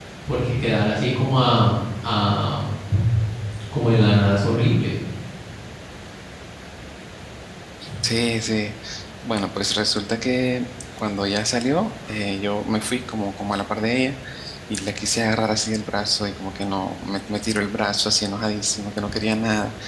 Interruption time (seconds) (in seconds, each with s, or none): none